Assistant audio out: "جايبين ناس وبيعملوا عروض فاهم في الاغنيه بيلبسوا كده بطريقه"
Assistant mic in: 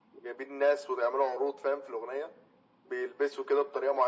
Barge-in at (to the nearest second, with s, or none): none